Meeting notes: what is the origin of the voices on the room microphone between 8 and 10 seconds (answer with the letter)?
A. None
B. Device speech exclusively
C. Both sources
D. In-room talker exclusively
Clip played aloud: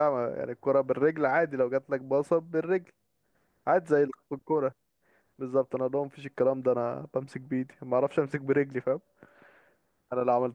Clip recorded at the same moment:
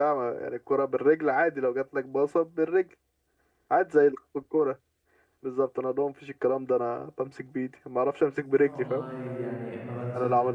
C